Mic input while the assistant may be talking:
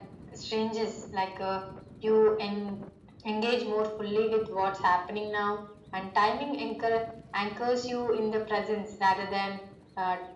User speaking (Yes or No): No